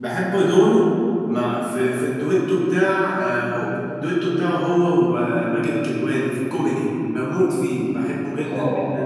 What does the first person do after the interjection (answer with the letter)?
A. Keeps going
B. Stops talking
B